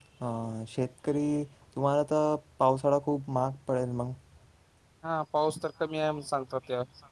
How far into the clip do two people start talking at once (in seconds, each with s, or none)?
none